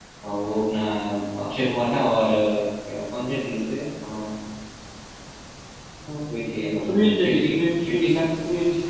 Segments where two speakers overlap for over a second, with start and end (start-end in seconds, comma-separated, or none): 6.6-8.2